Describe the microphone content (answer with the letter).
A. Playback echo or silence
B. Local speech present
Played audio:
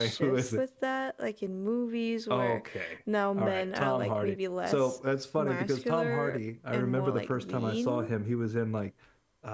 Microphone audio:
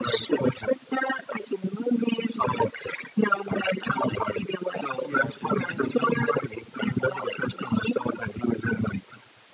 B